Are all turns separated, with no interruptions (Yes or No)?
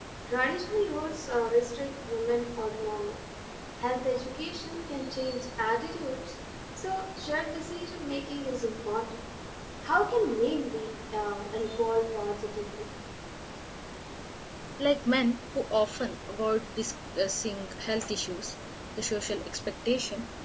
Yes